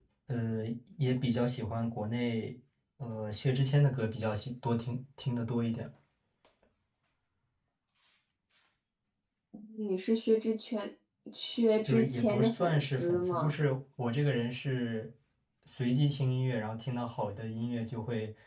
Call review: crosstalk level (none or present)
present